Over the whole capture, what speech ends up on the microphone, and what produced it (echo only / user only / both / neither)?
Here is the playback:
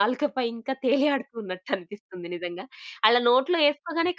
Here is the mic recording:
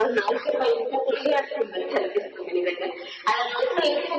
echo only